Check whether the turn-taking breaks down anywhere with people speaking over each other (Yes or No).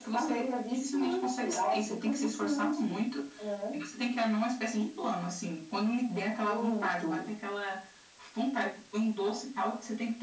Yes